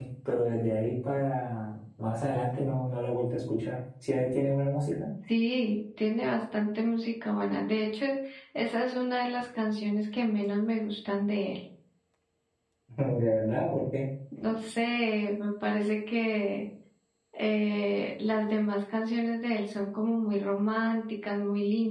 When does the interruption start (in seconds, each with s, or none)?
none